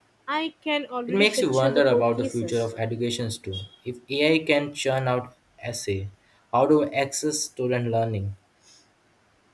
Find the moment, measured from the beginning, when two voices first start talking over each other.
1.1 s

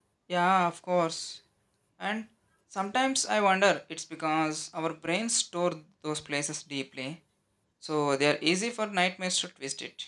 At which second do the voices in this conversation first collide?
none

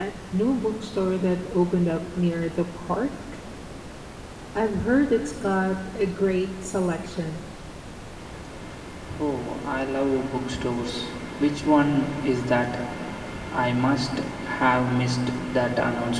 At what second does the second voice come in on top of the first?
none

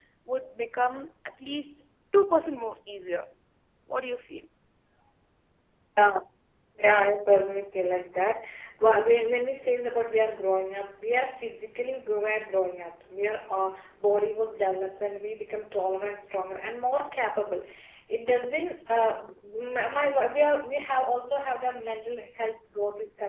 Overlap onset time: none

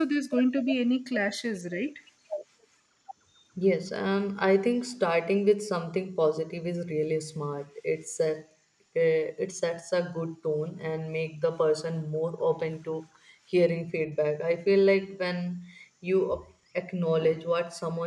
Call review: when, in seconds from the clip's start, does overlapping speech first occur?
none

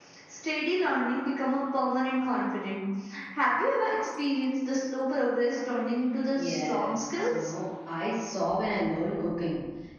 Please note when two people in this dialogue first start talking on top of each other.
6.3 s

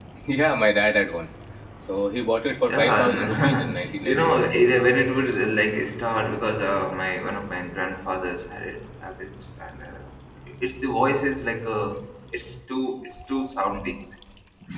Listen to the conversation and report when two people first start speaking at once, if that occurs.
2.7 s

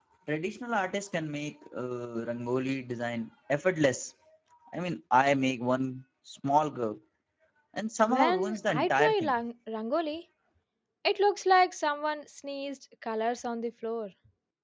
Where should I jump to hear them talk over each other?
8.1 s

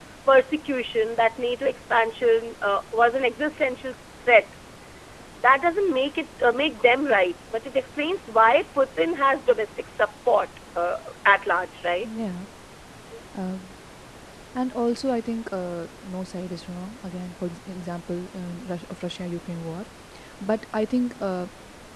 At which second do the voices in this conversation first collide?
none

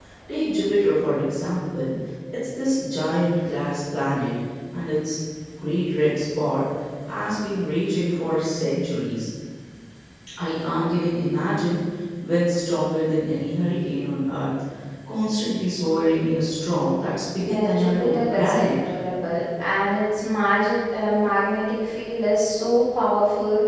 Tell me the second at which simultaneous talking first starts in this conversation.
17.5 s

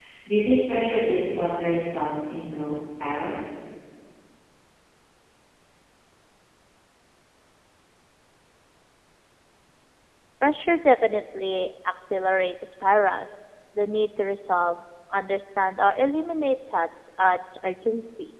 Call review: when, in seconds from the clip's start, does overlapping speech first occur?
none

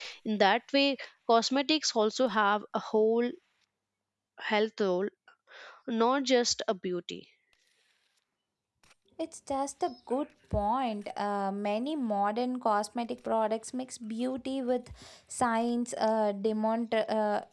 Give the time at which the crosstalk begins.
none

